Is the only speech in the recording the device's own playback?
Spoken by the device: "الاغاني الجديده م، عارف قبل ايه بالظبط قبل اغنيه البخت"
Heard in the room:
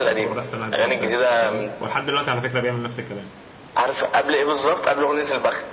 No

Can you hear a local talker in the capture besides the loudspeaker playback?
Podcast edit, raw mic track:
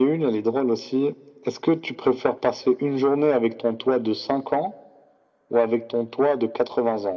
No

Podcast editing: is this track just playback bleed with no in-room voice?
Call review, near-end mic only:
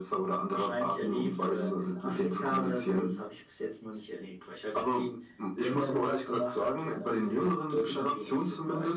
Yes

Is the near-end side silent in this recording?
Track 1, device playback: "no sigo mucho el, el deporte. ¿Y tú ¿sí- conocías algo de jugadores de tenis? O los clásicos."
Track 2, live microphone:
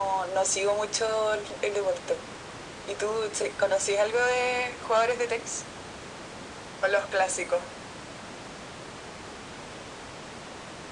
Yes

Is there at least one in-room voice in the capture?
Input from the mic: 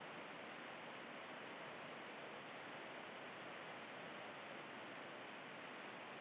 No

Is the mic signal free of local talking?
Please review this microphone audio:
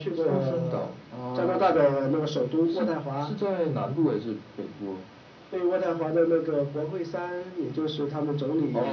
Yes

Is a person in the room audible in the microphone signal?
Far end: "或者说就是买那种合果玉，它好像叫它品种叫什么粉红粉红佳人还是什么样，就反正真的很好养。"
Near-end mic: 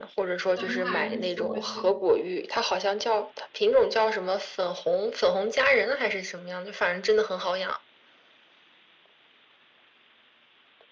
Yes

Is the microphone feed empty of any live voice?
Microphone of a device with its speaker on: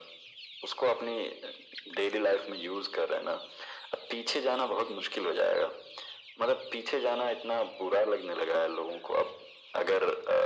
Yes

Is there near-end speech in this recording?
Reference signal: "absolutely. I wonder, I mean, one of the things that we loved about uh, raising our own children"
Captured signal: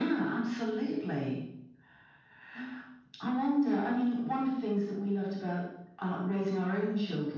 No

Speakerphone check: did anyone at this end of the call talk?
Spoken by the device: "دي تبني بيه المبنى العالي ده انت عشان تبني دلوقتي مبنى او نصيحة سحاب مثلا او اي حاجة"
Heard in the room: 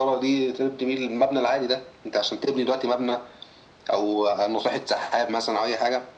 No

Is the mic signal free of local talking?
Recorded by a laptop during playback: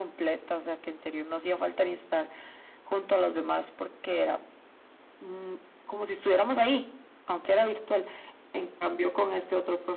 Yes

